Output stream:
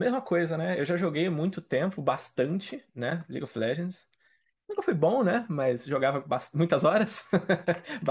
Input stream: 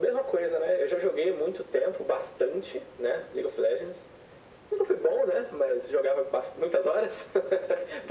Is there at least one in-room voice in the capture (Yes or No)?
No